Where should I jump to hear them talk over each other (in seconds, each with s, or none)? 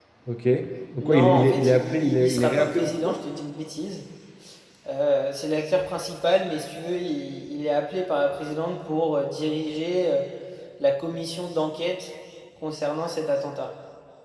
1.0 s